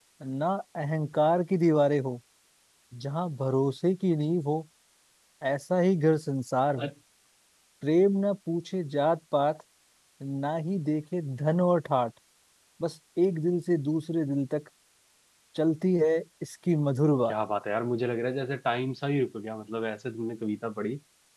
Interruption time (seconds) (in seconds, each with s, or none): none